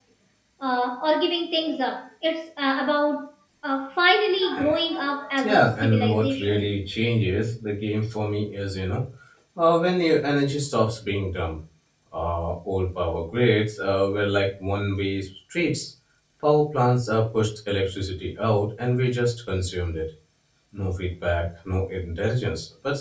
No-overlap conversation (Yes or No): No